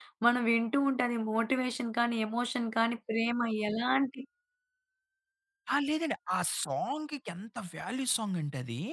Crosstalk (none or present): none